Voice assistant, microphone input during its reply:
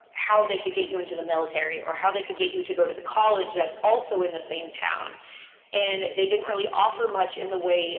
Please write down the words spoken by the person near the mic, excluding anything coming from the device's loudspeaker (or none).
none